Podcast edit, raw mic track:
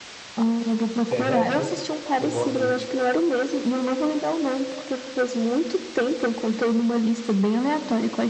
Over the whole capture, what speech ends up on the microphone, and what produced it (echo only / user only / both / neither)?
both